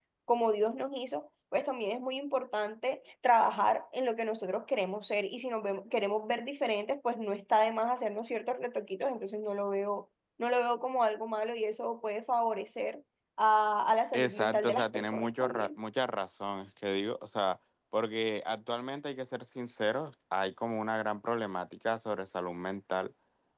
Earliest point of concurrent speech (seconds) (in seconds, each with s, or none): 14.1 s